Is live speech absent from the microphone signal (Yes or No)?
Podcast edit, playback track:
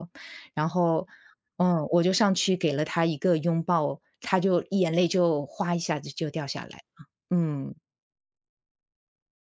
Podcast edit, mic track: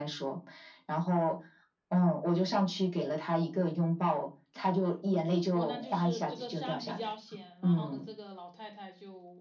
No